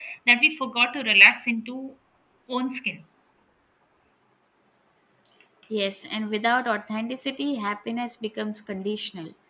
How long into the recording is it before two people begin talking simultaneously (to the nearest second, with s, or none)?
none